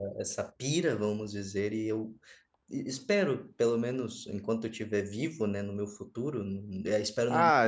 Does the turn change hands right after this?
Yes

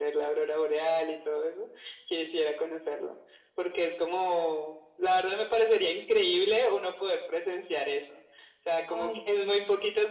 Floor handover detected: No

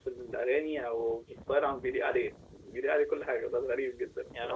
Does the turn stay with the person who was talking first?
No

